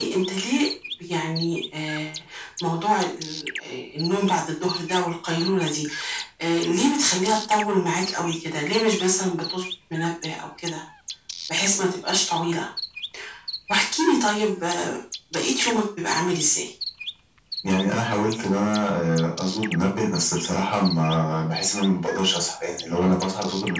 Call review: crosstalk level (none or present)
none